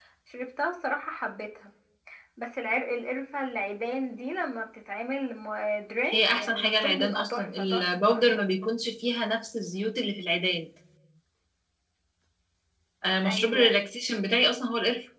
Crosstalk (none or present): present